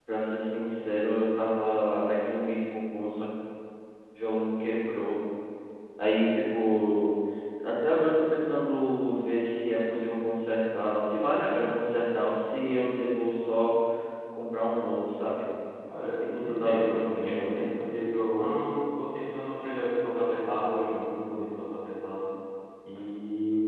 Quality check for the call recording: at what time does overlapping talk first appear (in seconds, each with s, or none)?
16.4 s